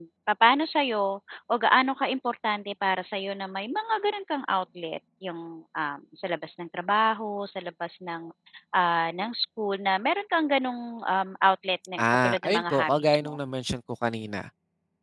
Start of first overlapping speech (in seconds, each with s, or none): 12.0 s